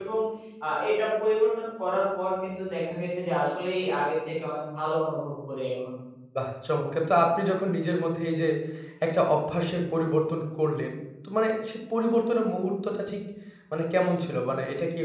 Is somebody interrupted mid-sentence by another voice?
No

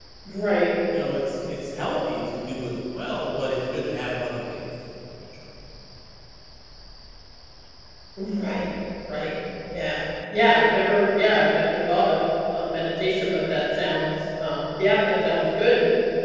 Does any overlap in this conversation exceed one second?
No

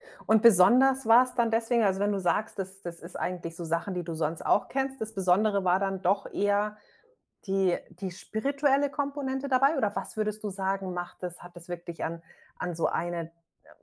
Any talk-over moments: No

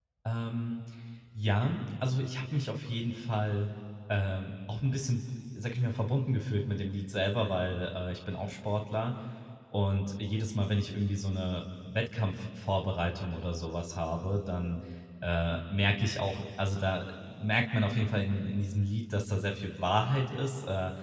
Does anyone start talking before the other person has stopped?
No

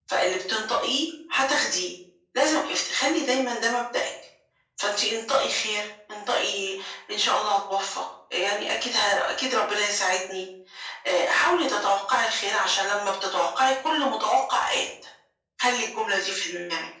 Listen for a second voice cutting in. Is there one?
No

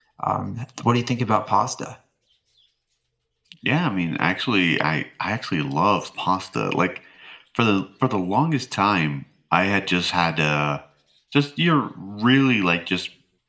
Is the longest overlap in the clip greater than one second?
No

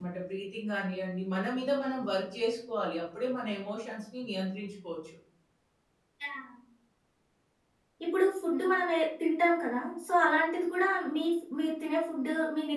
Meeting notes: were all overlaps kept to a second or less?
Yes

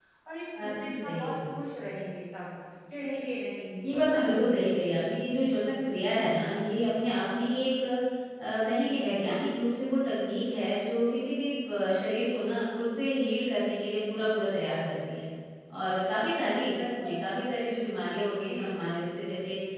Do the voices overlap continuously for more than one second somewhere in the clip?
Yes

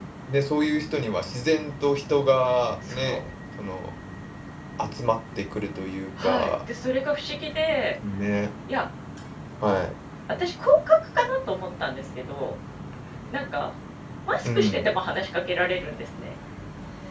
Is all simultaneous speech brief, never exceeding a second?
Yes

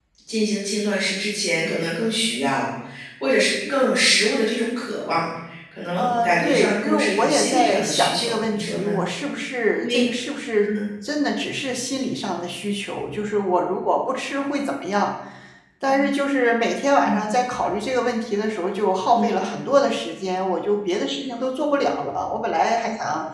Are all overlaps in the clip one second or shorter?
No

